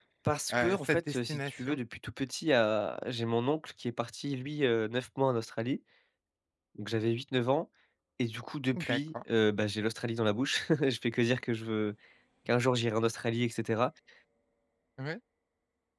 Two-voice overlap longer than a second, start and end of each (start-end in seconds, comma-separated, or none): 0.5-1.8